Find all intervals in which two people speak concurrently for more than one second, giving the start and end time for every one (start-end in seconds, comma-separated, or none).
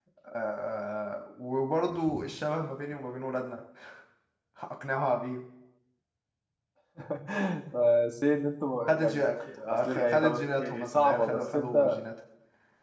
9.7-11.9